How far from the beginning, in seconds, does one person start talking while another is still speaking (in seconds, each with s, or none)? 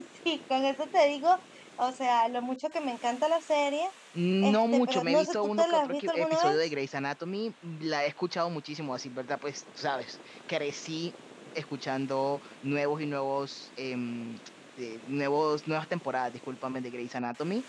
4.4 s